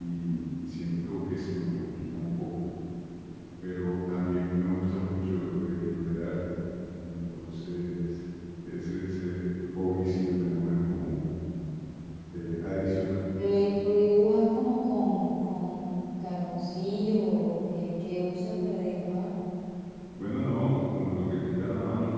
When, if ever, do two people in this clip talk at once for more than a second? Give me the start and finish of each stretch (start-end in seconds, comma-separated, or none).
none